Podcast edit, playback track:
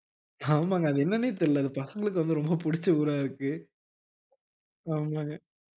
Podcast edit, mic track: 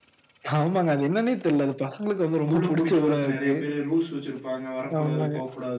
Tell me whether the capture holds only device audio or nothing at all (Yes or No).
No